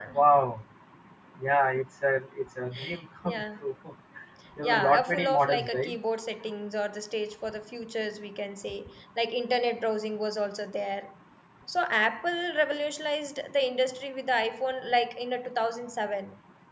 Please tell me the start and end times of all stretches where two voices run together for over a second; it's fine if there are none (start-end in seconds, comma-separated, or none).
4.6-5.9